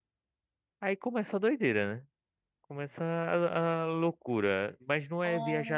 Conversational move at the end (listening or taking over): listening